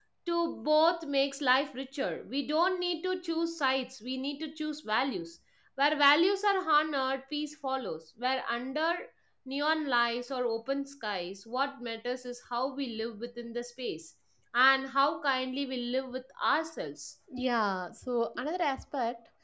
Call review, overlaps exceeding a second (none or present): none